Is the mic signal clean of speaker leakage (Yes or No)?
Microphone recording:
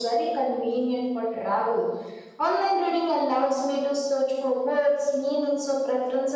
No